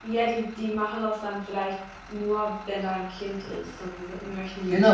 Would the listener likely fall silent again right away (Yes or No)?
No